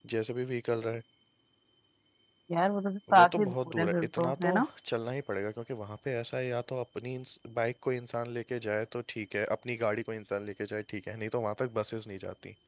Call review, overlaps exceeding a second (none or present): present